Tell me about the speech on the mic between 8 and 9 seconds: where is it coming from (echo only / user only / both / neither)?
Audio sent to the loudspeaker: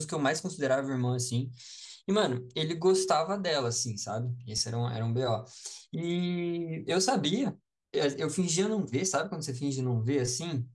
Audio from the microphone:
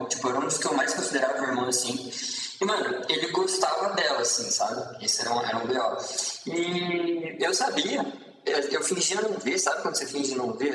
echo only